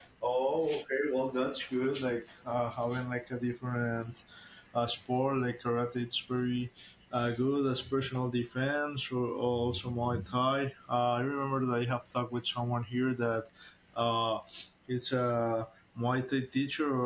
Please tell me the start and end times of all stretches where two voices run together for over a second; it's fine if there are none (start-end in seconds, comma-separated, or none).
none